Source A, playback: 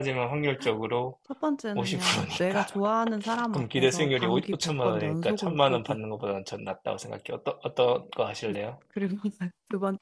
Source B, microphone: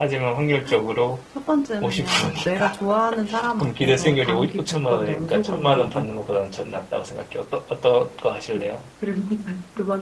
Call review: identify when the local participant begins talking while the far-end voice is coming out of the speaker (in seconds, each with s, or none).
none